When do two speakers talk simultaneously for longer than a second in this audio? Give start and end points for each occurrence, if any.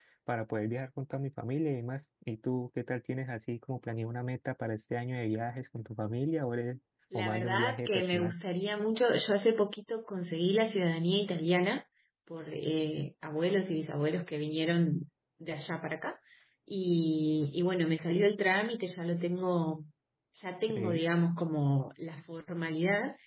7.1-8.3

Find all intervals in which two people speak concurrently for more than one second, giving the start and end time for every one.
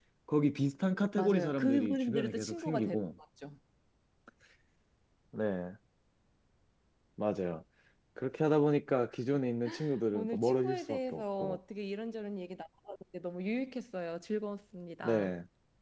1.1-3.0, 10.1-11.6

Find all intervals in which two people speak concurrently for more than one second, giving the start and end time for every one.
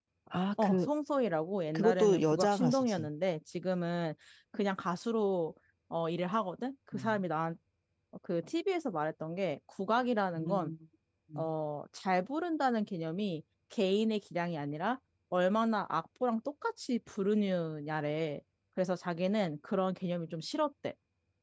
1.8-3.1

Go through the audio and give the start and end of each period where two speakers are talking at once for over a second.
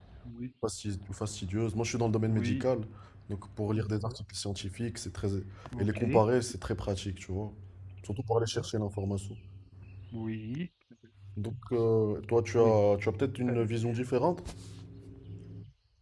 none

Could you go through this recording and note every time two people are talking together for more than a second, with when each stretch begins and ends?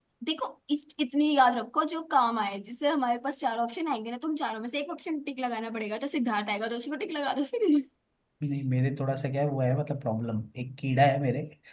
none

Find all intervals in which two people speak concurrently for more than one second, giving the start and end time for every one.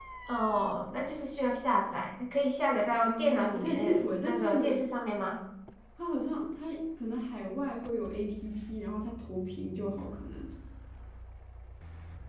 3.0-4.8

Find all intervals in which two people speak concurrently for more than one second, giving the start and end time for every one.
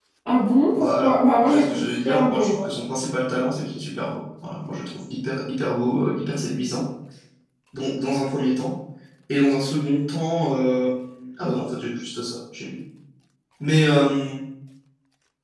0.7-2.6

